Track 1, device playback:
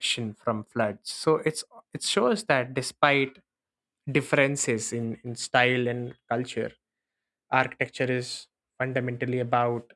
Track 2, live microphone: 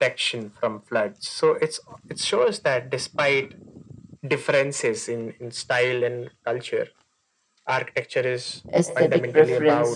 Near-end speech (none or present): present